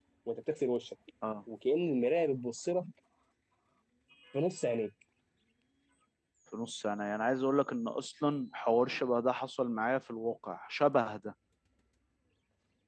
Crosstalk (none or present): none